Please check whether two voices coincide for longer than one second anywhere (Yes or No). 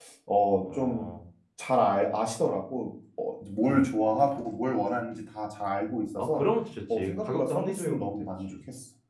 Yes